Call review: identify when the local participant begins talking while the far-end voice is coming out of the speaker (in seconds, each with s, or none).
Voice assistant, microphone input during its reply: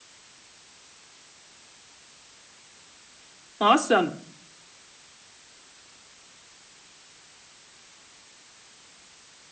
3.6 s